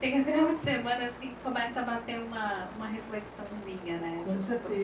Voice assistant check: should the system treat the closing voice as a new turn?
Yes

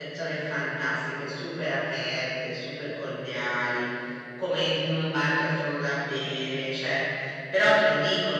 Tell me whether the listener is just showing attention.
Yes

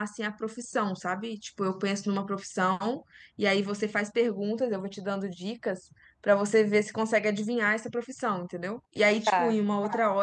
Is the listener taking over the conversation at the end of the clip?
No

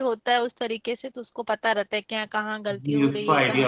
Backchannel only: No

